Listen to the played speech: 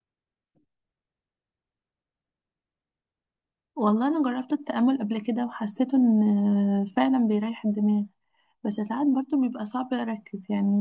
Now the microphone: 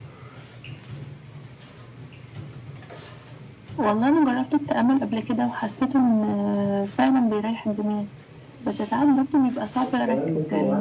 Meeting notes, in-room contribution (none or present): present